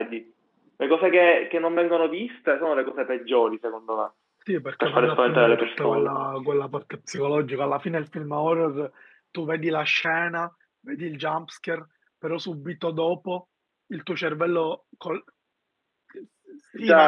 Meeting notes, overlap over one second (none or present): present